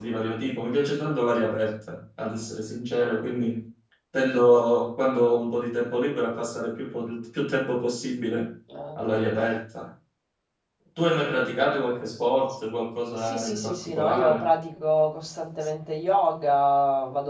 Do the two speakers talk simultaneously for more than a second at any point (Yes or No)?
Yes